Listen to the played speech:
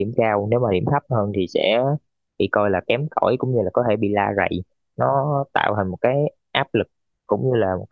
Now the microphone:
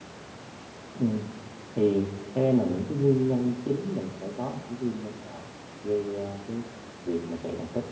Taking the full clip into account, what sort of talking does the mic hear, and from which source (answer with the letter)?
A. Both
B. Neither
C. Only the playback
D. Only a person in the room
D